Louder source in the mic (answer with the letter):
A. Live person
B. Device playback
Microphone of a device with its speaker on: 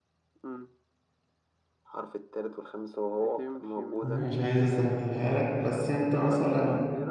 A